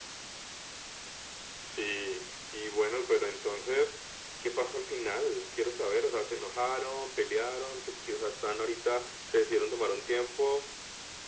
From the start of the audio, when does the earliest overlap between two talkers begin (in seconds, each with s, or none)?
none